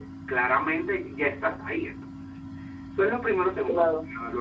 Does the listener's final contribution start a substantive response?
No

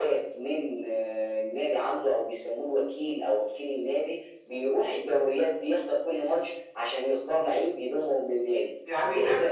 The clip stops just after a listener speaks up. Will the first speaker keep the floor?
No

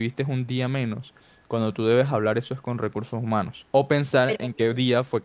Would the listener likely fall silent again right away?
Yes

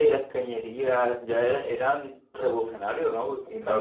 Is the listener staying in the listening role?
No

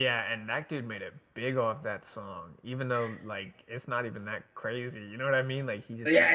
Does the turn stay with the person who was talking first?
No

